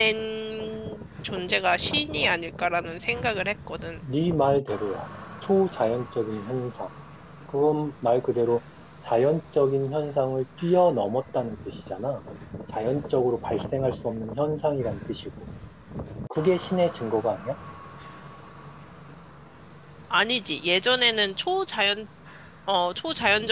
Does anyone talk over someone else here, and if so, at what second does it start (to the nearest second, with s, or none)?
none